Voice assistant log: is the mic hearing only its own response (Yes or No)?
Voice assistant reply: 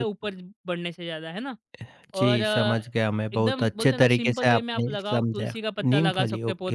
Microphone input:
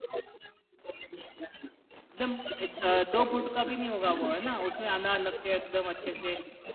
No